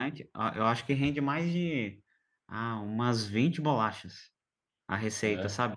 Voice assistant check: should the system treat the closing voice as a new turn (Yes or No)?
No